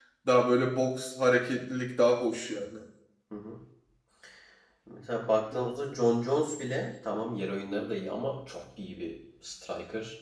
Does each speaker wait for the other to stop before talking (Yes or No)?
Yes